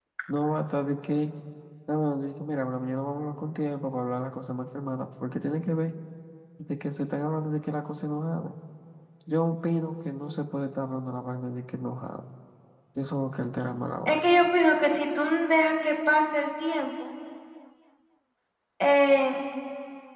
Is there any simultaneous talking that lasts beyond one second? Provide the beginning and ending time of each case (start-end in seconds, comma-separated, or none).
none